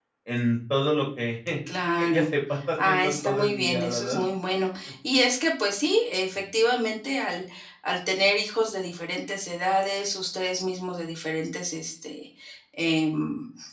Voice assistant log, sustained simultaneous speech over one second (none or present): present